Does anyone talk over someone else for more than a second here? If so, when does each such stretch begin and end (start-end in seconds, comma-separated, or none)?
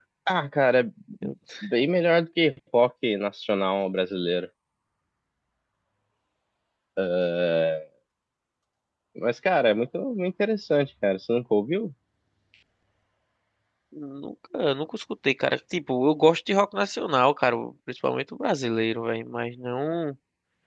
none